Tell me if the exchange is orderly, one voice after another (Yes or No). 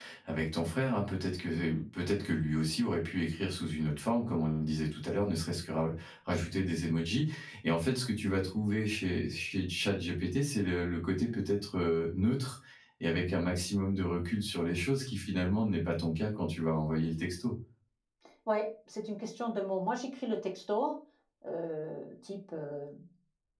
Yes